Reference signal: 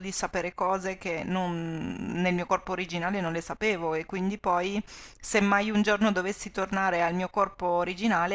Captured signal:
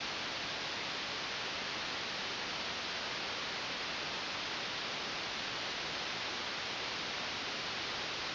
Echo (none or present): none